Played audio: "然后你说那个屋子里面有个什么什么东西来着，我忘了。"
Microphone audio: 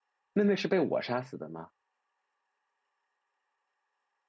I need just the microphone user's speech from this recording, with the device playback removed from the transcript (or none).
妹妹是被我杀死的吗？